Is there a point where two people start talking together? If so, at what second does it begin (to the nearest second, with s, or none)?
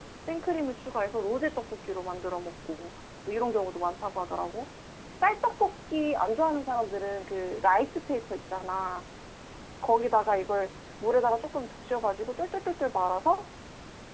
none